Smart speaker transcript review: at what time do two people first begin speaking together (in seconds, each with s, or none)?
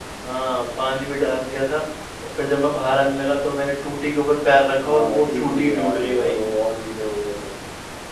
4.8 s